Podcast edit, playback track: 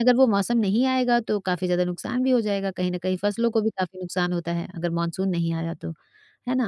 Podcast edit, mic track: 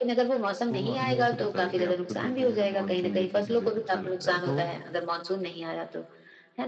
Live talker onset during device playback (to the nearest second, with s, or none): 1 s